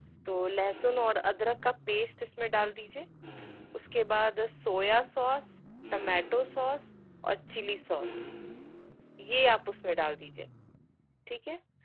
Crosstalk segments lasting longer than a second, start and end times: none

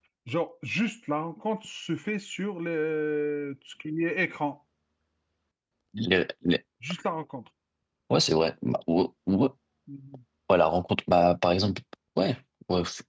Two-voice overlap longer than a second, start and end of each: none

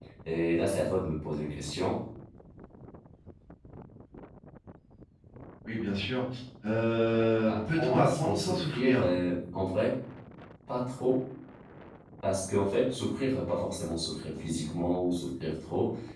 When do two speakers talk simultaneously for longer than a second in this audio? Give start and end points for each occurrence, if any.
7.5-9.1

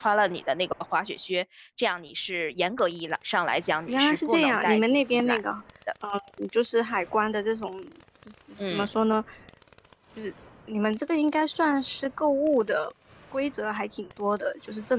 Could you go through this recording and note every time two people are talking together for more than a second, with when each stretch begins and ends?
3.9-5.4

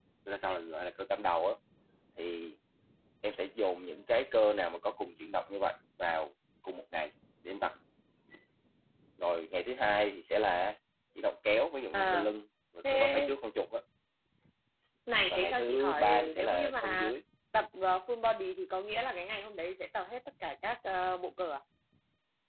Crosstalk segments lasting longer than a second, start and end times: 15.3-17.1

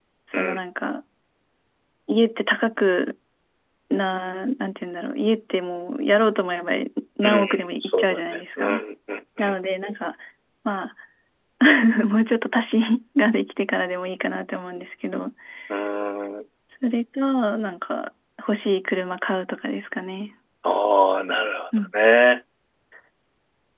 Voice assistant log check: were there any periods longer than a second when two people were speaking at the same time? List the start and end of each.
7.2-8.8

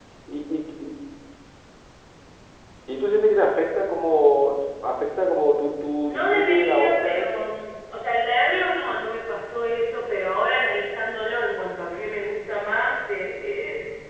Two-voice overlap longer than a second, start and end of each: 6.0-7.4

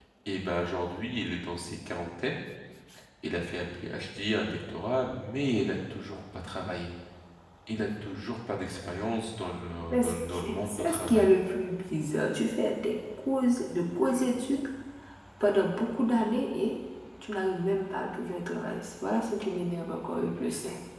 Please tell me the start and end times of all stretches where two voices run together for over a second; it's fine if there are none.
9.9-11.3

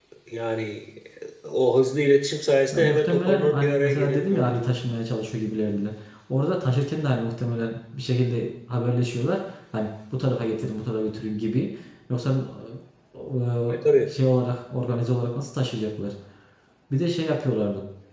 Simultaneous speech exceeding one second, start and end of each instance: 2.7-4.5

